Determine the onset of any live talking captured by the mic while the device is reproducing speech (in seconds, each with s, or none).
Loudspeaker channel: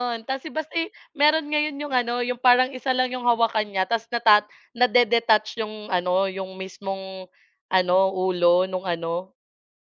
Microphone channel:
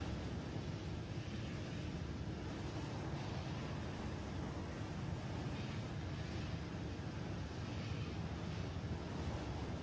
none